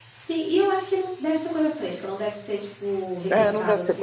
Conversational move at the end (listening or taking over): taking over